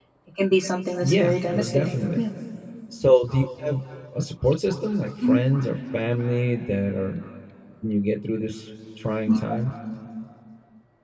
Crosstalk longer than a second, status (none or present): present